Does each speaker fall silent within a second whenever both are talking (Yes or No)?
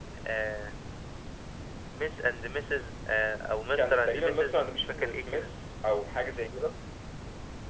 No